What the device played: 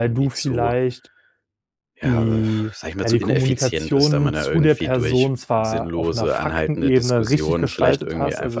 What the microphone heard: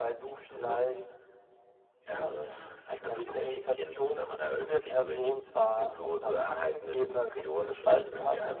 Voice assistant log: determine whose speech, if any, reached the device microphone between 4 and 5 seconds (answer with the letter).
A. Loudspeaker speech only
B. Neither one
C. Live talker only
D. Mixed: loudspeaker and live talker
A